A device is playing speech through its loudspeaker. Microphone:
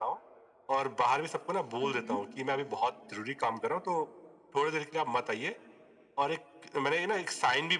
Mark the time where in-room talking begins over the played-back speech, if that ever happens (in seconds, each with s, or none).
1.8 s